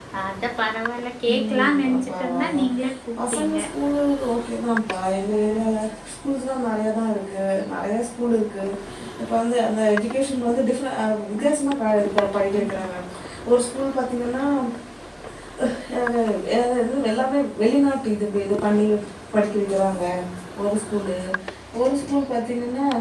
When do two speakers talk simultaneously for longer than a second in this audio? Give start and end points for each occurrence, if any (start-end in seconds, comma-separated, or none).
1.3-2.6